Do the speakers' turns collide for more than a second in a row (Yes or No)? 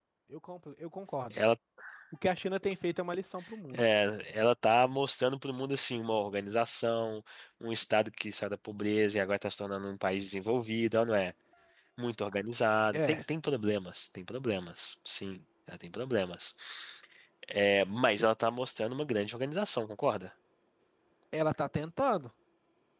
No